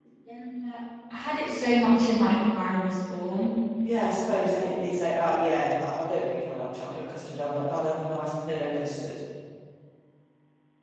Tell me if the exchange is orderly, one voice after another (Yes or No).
Yes